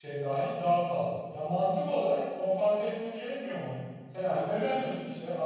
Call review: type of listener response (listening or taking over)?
listening